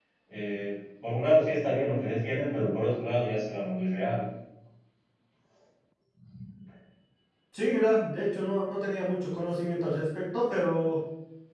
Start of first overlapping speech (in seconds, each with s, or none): none